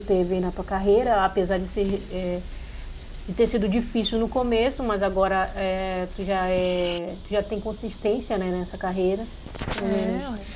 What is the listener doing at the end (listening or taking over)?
listening